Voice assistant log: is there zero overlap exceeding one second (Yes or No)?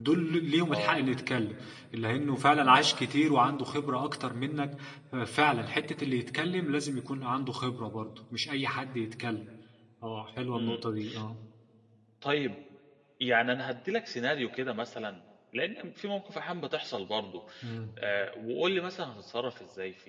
Yes